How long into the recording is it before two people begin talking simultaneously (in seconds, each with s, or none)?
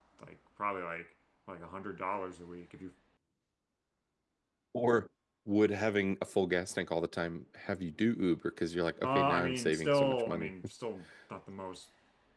9.0 s